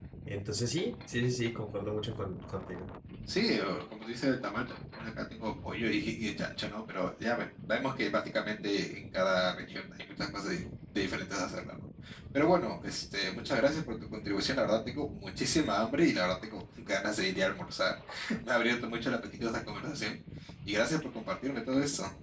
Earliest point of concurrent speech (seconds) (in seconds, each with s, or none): none